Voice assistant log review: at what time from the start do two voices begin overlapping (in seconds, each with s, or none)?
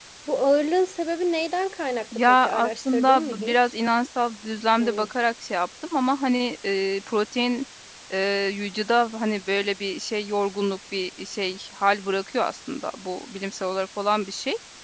2.3 s